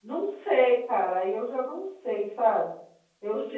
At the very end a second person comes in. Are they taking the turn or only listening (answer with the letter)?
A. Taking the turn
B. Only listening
A